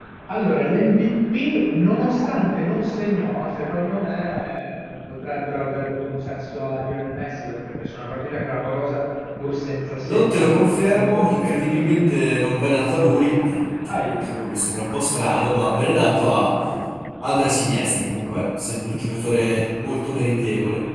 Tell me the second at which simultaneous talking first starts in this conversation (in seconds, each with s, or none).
10.0 s